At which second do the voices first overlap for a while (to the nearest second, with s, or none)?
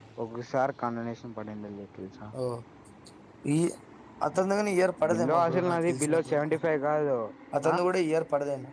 5 s